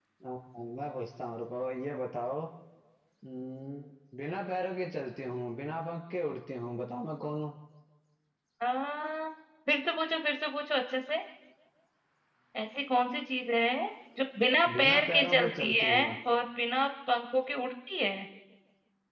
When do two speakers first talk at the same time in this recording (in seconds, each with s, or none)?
14.8 s